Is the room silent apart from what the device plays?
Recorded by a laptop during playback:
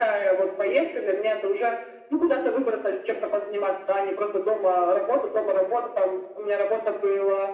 Yes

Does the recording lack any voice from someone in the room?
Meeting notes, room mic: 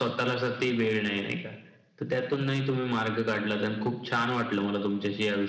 Yes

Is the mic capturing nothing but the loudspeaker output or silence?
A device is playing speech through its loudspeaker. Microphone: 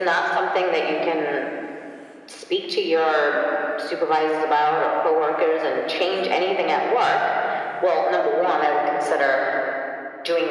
Yes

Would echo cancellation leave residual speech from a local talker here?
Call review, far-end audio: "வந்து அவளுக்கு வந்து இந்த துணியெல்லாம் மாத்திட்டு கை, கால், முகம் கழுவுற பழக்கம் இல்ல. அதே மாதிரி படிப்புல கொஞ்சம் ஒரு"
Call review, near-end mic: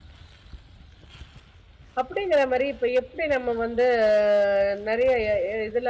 Yes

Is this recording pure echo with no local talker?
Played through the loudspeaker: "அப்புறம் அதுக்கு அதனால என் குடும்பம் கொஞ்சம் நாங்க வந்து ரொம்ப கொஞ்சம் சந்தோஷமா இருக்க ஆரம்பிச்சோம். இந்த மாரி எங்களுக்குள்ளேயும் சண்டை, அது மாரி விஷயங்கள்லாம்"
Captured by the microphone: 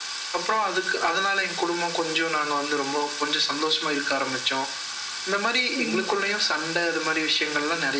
No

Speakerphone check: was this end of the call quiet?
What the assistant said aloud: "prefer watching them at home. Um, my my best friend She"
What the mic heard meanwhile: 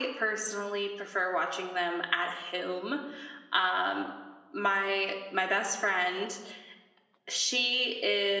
Yes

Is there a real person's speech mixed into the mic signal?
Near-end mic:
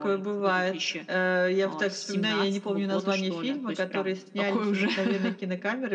No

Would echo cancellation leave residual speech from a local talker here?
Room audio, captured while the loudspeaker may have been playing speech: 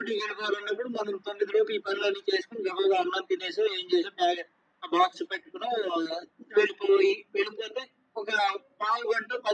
No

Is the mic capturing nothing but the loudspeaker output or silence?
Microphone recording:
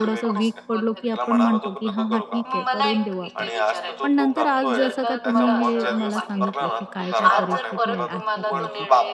No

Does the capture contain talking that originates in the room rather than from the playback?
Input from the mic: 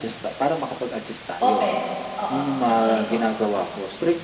Yes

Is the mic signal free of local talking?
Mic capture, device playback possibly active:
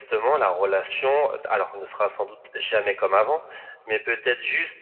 Yes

